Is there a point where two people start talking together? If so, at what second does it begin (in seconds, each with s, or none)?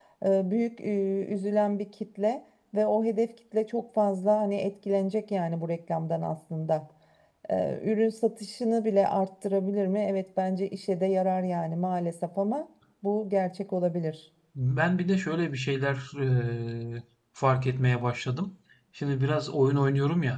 none